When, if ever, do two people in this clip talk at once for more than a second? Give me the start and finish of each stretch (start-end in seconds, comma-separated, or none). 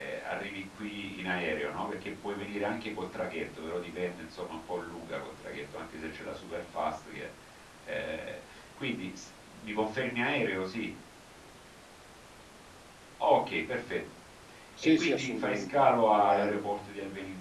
15.0-16.7